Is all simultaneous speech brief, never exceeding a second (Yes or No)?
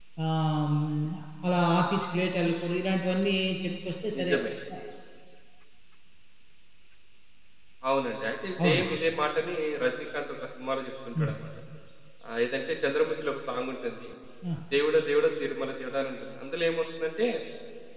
Yes